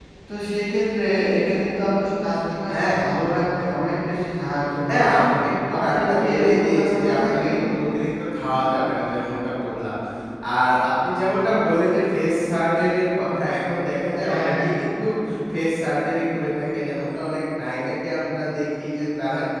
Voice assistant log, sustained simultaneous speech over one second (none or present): present